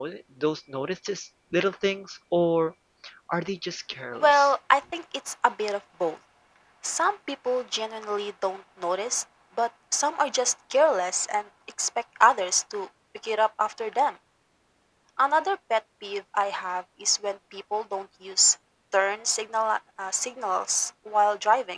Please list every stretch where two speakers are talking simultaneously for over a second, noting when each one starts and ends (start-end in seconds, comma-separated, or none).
none